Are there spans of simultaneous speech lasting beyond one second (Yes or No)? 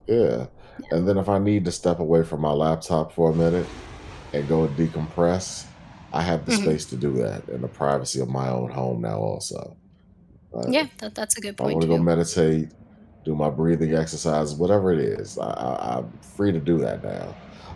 No